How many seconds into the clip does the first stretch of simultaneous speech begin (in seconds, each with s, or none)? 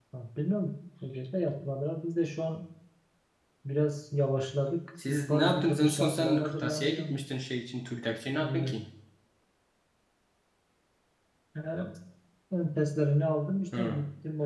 5.1 s